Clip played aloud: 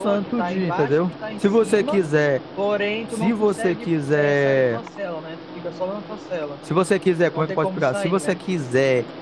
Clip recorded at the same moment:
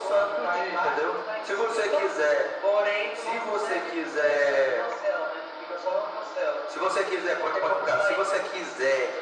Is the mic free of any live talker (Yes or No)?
Yes